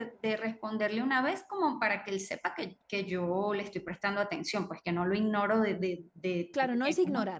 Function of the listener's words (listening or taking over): taking over